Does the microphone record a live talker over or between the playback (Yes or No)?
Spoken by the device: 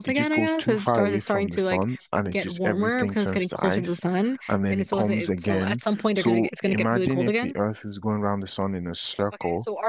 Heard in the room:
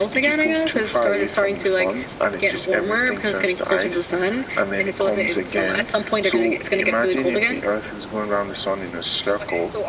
No